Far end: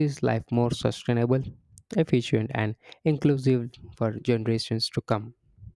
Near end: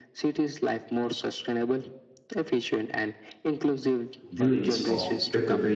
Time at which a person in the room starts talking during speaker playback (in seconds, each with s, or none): 4.3 s